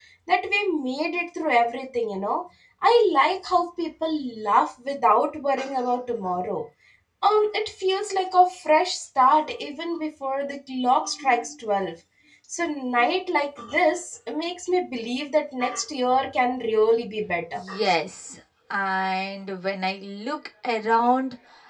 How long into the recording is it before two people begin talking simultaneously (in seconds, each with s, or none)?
none